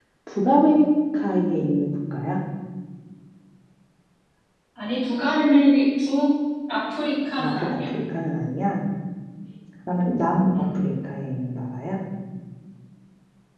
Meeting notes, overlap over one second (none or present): none